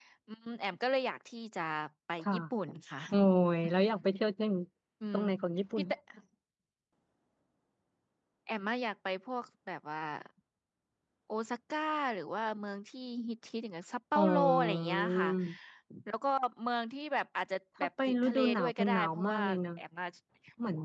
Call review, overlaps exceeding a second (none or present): present